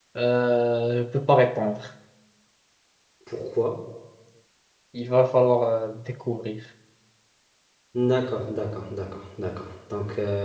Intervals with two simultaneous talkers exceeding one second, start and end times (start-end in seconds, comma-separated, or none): none